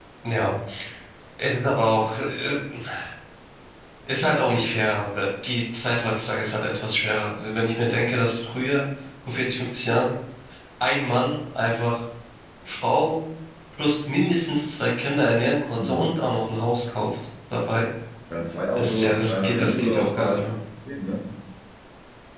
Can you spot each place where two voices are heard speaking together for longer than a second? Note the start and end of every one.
18.7-20.6

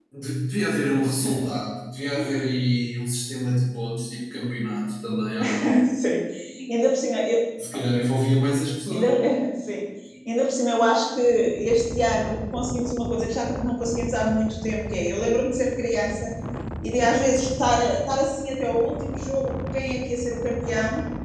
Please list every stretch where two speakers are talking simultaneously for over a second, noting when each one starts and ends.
none

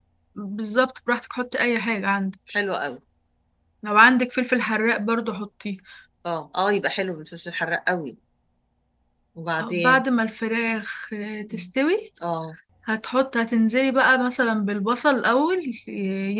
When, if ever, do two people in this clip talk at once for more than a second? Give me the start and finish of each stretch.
none

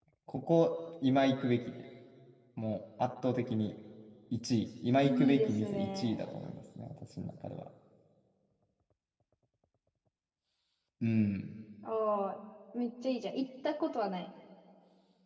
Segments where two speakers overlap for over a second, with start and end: 5.0-6.4

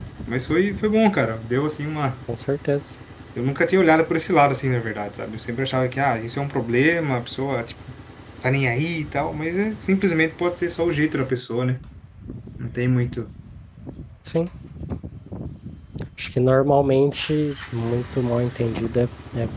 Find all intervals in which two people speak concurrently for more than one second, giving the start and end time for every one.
none

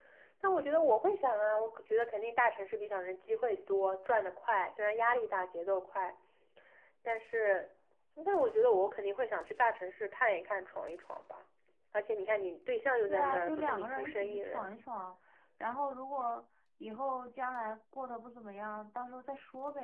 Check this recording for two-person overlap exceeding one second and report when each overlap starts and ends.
13.1-14.7

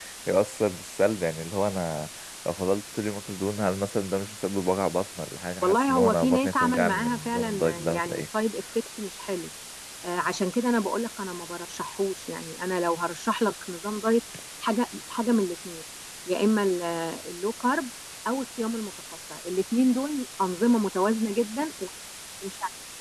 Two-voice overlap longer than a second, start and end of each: 5.6-8.2

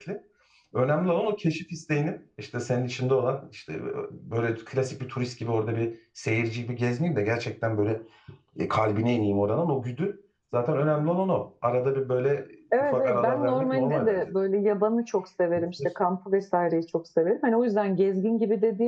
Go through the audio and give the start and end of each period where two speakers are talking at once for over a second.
12.8-14.2

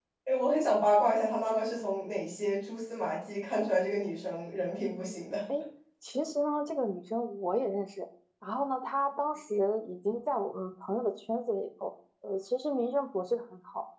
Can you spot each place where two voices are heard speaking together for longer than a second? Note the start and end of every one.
none

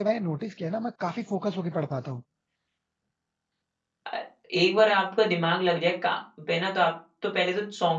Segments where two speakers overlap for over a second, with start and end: none

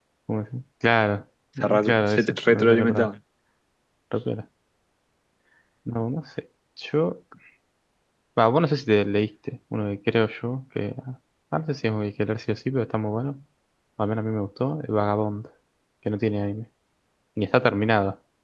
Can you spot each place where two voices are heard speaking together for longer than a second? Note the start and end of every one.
1.6-3.1

